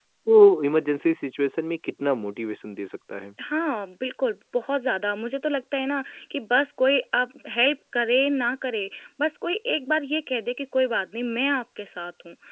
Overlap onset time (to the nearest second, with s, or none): none